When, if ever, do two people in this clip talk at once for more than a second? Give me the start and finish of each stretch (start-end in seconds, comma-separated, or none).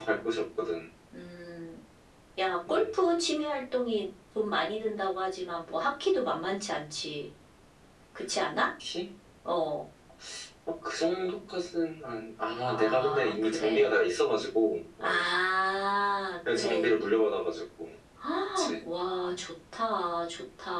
12.6-13.9